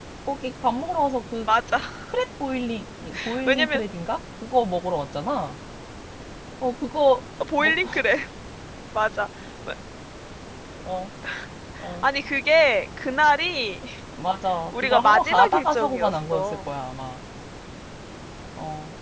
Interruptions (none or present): present